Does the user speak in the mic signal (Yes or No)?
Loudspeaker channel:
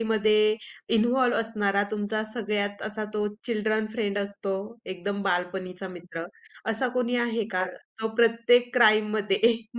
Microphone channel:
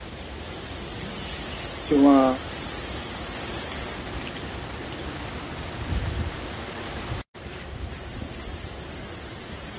Yes